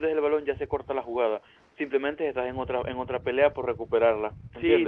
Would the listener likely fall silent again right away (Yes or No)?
No